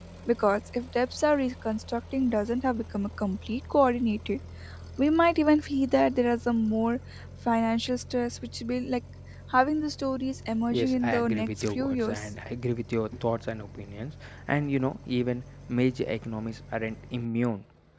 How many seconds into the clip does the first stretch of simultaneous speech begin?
10.7 s

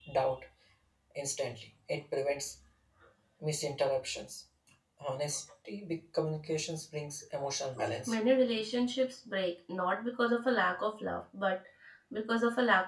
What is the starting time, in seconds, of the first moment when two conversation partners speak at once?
none

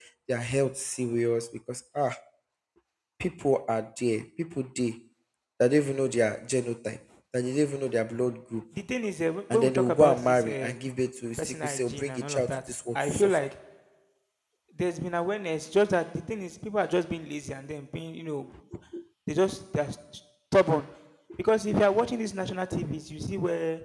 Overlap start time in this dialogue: 9.5 s

